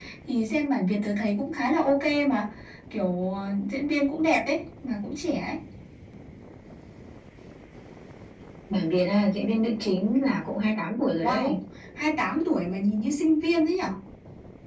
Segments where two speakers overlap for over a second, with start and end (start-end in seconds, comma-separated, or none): none